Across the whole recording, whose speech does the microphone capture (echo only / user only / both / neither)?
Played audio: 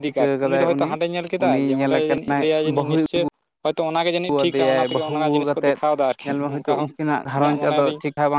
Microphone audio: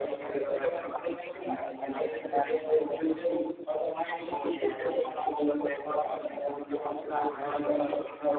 both